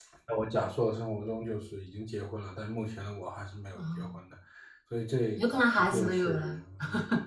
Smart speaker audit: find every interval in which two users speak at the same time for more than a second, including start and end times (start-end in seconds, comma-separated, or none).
5.4-6.6